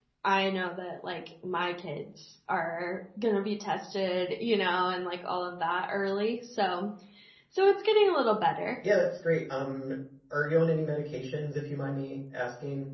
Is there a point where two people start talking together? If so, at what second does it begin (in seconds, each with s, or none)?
none